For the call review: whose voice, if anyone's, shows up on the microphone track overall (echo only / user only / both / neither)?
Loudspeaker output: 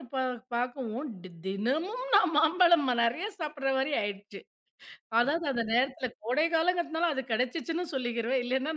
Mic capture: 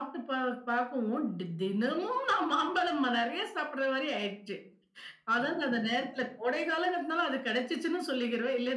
echo only